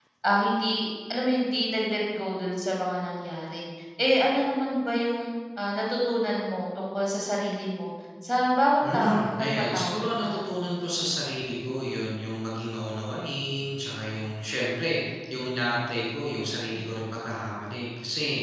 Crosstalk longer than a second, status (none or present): present